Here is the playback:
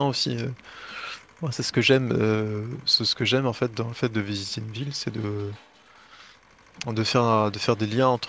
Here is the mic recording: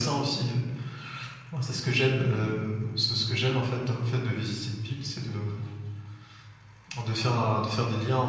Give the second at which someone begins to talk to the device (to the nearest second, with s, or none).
none